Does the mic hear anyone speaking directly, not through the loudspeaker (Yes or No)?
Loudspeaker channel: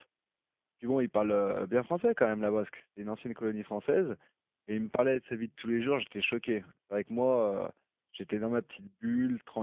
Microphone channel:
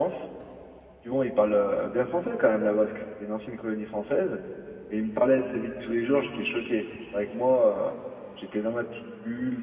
No